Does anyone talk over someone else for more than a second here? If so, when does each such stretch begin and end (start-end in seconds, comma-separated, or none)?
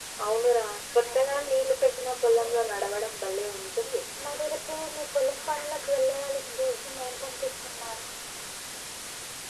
none